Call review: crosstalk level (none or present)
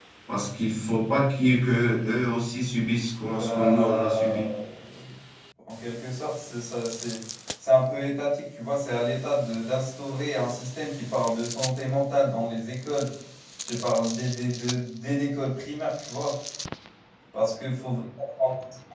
present